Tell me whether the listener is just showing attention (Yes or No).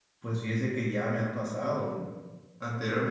Yes